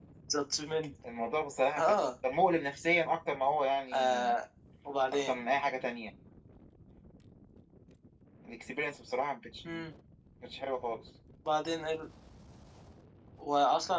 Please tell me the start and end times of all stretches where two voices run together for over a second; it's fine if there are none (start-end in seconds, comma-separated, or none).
none